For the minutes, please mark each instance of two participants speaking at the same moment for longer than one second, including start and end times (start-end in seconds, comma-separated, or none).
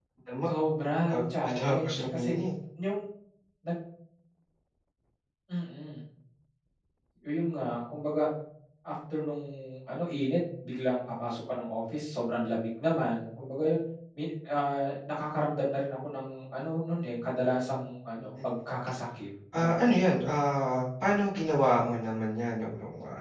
1.1-2.4